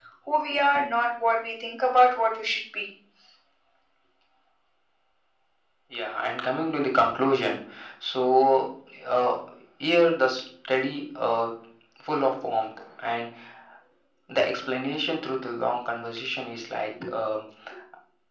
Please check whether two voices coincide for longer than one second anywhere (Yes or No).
No